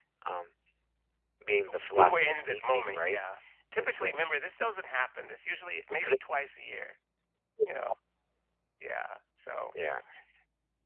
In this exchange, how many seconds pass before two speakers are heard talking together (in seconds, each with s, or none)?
1.8 s